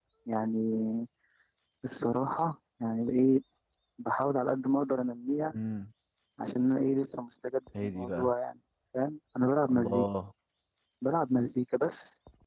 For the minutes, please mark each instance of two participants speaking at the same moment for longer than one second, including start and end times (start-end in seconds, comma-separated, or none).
none